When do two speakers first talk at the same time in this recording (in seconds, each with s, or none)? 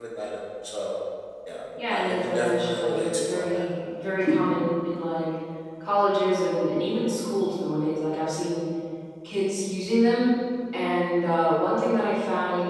1.9 s